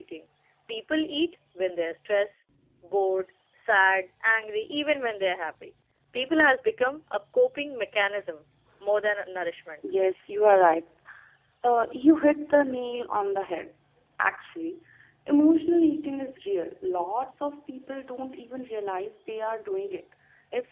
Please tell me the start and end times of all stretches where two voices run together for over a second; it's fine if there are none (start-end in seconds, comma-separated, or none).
none